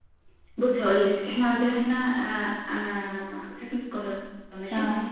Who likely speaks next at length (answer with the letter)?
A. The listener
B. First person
B